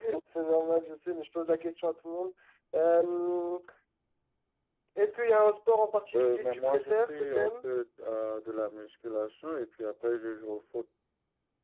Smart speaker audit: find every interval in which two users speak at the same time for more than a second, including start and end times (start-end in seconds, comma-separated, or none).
6.2-7.6